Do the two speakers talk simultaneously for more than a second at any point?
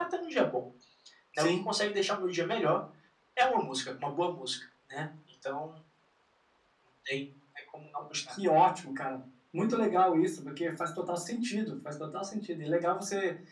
No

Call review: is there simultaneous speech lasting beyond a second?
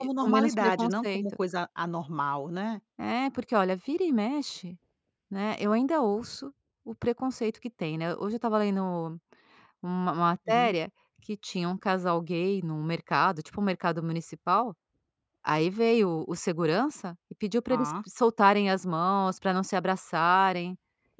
Yes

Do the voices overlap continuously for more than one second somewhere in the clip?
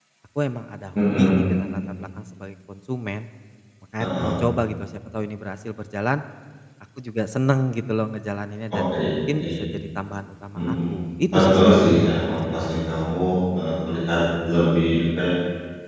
Yes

